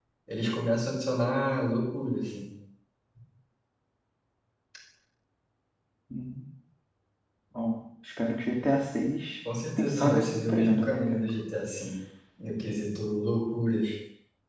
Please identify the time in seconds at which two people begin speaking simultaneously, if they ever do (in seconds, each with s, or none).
9.9 s